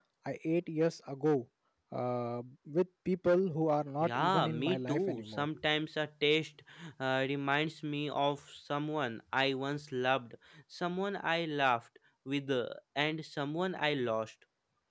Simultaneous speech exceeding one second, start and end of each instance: 4.0-5.5

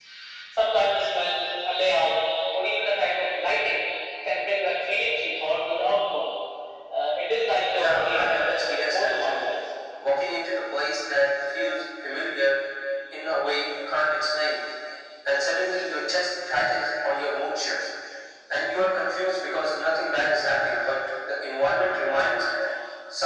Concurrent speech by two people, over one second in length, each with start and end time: 7.7-9.4

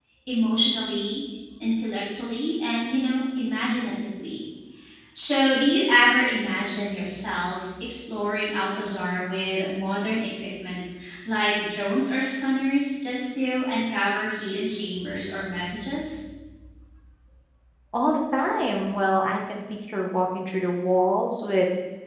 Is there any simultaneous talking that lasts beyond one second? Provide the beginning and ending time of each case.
none

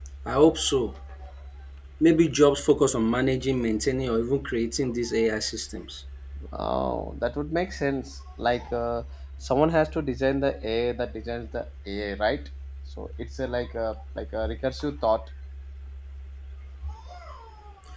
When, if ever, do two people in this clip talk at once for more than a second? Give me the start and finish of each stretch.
none

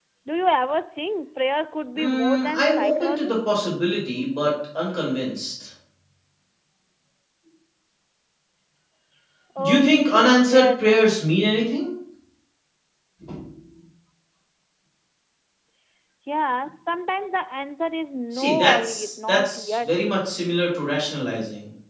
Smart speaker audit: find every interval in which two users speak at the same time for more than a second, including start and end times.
1.9-3.4, 9.6-11.5, 18.3-20.0

